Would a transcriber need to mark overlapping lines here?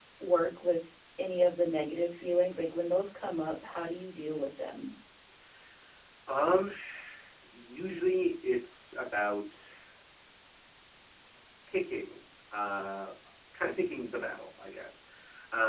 No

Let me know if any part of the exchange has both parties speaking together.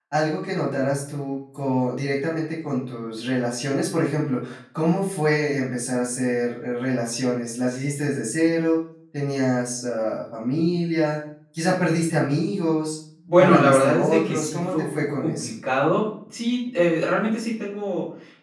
Yes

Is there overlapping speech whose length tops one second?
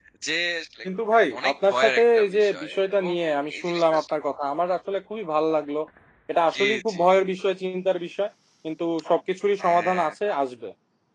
Yes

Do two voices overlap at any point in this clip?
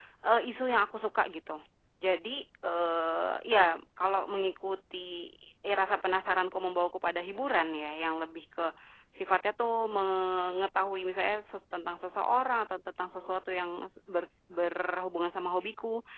No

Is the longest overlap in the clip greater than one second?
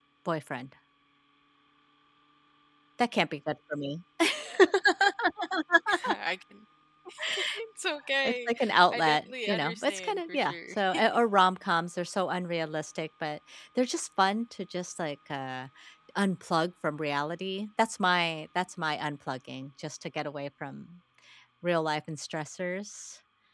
Yes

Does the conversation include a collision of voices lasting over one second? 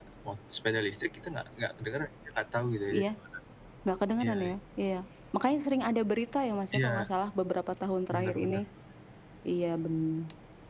No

